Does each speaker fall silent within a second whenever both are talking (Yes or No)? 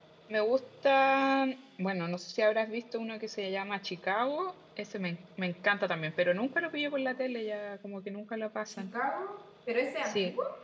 Yes